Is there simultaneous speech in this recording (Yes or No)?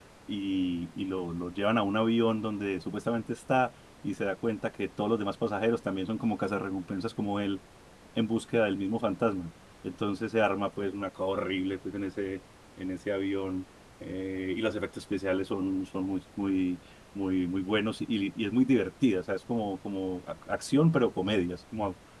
No